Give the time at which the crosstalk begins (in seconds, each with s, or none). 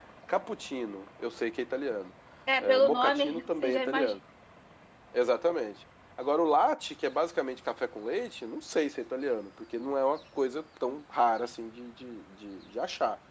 2.6 s